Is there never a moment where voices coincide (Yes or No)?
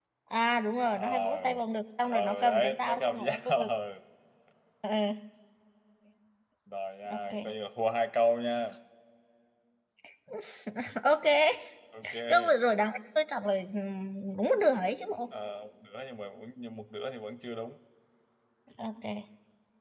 No